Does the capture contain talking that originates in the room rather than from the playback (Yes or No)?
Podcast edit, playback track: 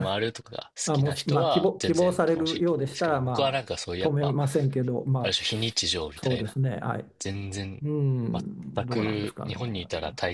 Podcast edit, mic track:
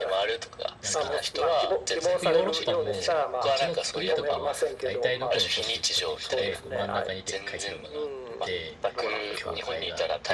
Yes